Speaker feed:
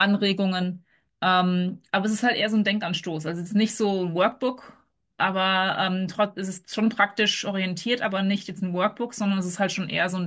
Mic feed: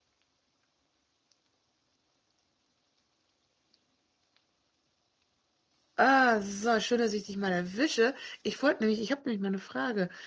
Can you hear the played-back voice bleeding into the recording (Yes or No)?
No